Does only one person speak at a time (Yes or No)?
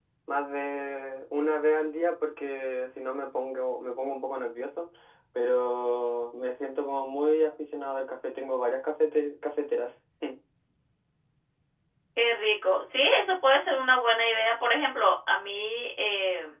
Yes